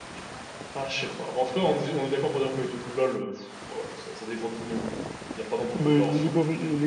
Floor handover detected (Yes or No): Yes